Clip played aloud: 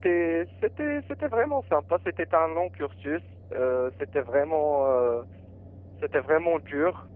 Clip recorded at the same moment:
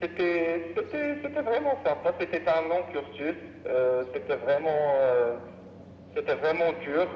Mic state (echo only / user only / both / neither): echo only